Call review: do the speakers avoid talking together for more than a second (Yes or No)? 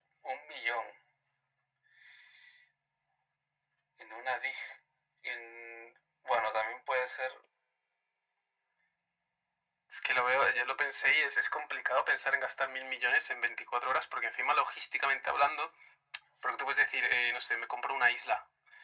Yes